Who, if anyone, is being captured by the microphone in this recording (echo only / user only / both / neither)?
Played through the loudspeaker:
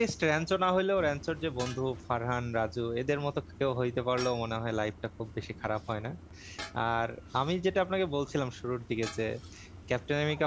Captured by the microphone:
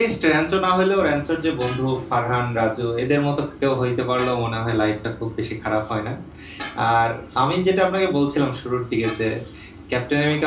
echo only